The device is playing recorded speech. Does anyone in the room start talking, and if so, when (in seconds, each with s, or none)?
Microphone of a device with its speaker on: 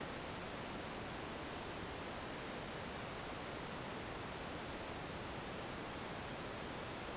none